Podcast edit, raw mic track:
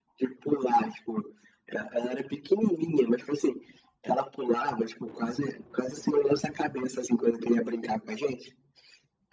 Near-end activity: none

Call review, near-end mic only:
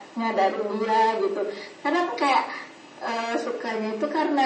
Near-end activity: none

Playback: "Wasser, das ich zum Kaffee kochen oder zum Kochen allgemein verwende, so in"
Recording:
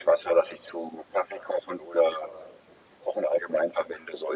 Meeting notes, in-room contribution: none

